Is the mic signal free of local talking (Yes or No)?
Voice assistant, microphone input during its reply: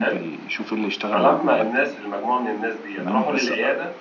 No